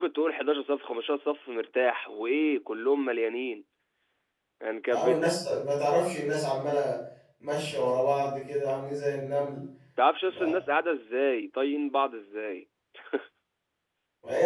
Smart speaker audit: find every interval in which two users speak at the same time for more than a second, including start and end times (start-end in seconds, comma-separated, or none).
none